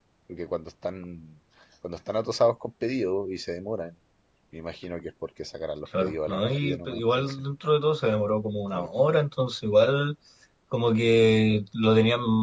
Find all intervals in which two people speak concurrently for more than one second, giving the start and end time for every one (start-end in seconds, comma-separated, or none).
6.0-7.4